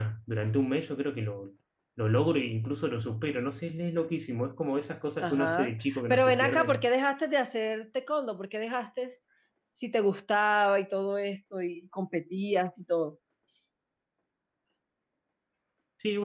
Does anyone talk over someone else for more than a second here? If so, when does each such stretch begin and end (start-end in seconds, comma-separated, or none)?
5.2-6.9